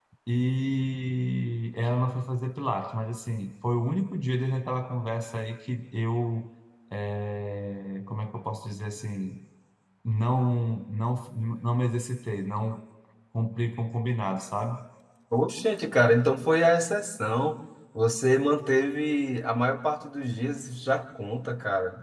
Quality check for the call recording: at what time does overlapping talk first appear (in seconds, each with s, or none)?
none